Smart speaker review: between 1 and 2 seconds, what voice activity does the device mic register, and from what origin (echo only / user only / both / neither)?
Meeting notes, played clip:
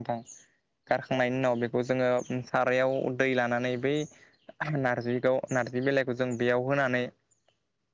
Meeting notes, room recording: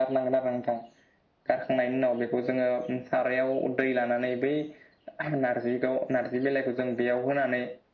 echo only